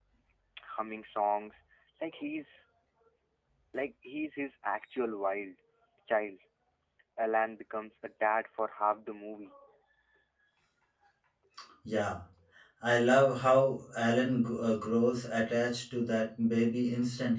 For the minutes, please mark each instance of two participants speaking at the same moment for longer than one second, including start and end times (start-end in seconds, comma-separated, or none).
none